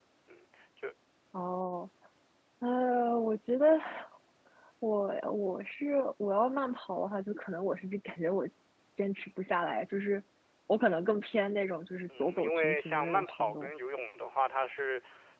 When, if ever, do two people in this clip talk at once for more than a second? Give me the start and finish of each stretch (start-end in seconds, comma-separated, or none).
12.2-13.7